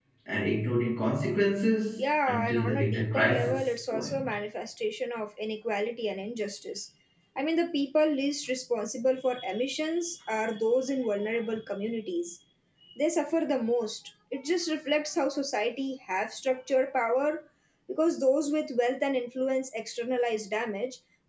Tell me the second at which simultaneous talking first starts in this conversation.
2.0 s

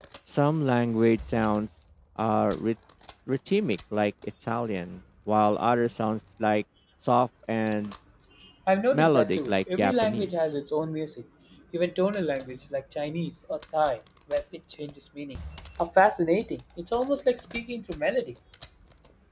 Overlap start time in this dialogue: 8.9 s

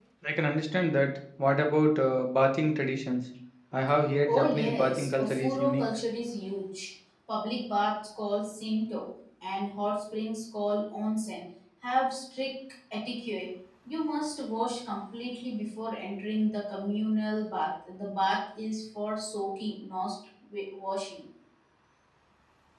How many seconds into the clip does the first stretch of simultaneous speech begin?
4.2 s

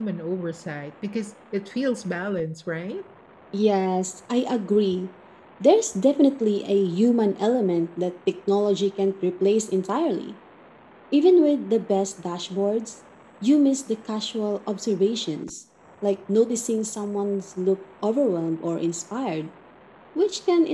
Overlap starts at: none

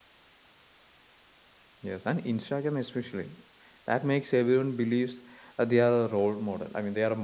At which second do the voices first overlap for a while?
none

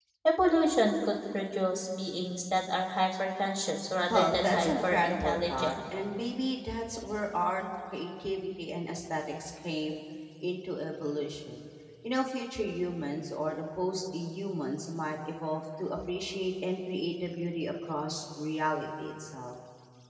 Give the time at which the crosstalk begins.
4.1 s

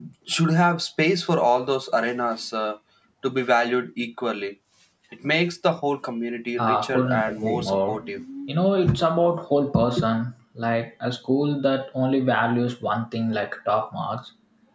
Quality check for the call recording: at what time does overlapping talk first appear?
6.6 s

